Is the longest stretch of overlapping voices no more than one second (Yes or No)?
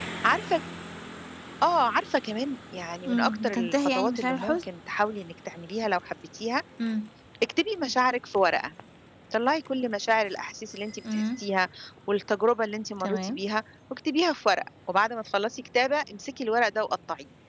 No